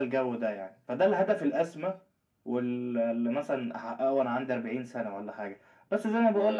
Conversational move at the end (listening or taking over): listening